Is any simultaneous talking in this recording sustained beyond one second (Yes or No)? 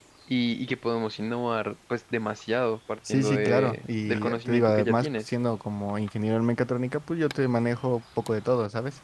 Yes